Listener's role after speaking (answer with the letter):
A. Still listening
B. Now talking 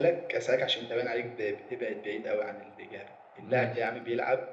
A